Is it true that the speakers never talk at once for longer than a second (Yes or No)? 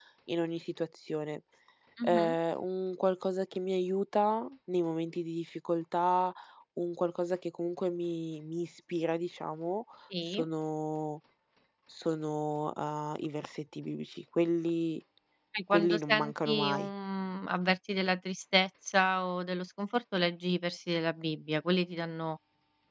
No